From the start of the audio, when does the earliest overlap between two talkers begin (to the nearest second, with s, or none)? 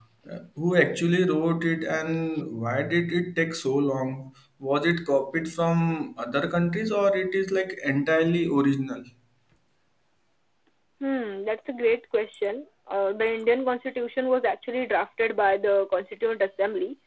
none